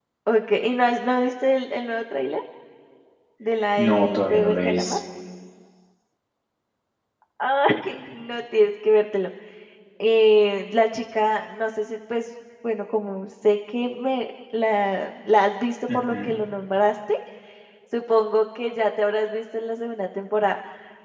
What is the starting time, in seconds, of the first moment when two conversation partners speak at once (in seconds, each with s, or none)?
3.8 s